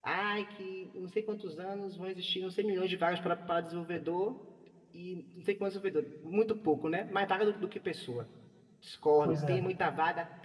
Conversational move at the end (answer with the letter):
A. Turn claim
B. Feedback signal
B